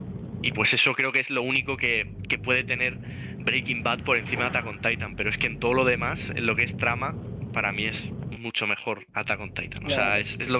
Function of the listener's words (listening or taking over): taking over